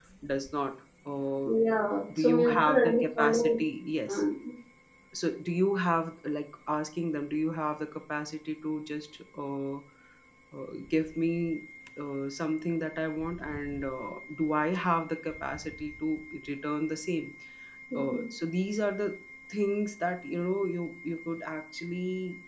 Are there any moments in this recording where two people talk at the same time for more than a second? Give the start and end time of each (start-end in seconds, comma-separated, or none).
2.2-3.6